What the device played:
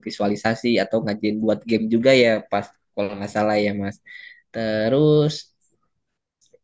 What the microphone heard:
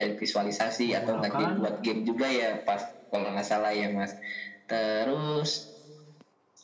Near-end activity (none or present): present